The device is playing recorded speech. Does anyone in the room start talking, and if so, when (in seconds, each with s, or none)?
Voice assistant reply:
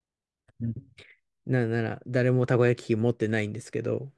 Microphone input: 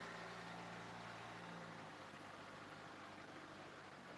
none